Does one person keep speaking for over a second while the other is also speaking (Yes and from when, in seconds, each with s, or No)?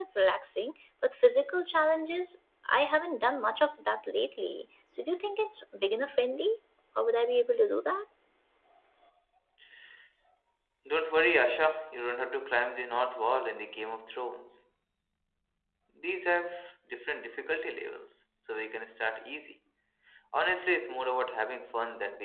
No